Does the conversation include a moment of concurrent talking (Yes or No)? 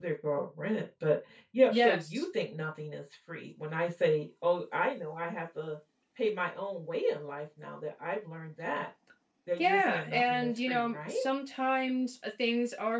Yes